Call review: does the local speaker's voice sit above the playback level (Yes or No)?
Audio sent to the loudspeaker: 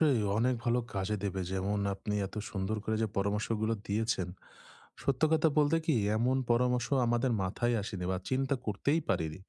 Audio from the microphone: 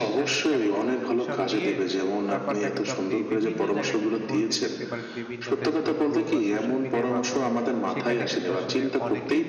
No